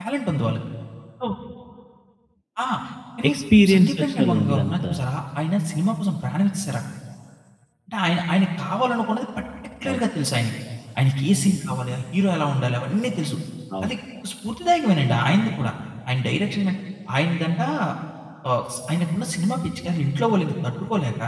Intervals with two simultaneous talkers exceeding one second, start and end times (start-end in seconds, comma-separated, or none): 3.7-4.9